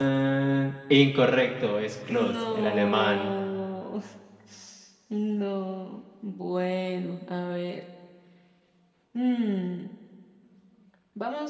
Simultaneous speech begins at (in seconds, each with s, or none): 2.1 s